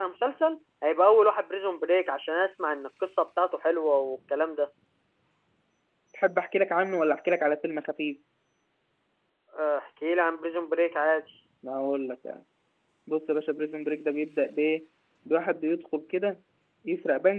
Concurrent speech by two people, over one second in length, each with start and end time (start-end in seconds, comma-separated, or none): none